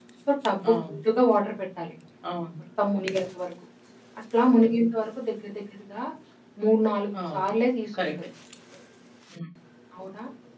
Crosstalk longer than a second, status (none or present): none